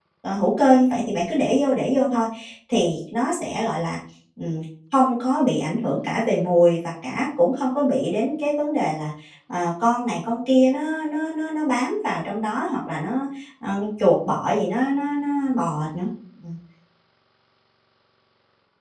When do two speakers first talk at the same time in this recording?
none

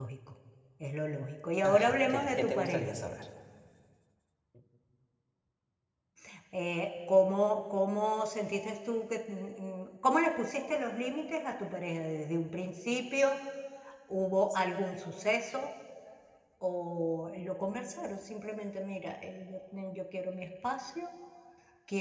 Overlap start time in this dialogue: 1.6 s

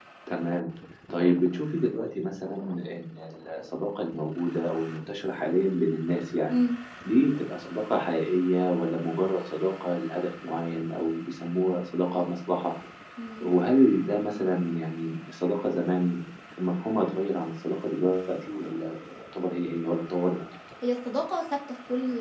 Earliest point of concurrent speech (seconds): none

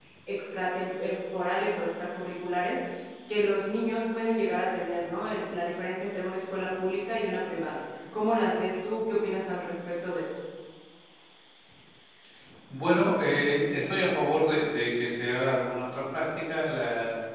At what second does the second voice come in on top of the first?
none

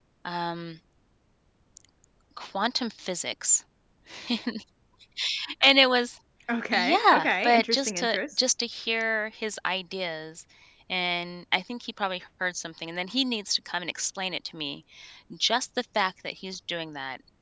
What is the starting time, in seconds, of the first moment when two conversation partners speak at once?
6.7 s

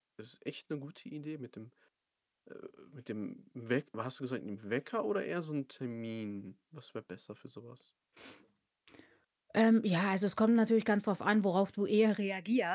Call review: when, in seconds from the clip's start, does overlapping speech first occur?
none

